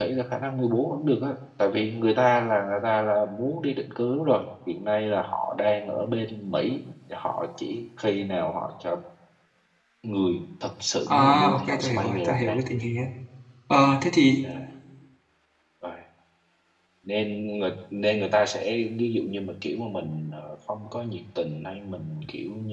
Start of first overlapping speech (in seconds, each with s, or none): 11.1 s